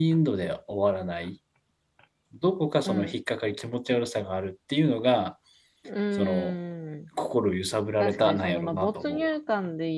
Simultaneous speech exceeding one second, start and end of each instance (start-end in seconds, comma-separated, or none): 8.0-9.3